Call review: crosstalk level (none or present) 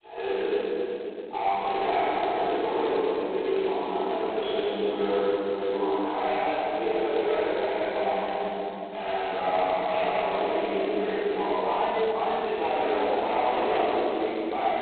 present